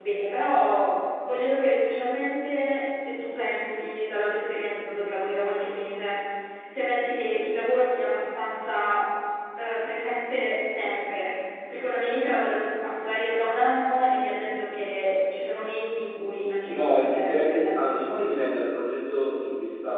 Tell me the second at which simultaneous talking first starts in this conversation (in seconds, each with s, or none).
16.6 s